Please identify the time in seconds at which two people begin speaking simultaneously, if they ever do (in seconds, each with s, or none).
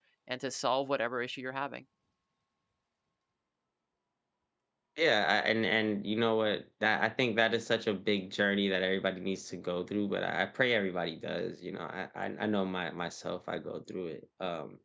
none